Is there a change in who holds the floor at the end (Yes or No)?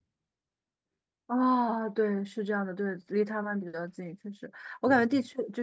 No